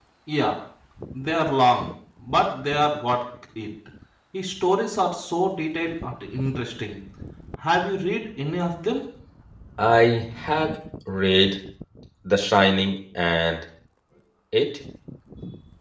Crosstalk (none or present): none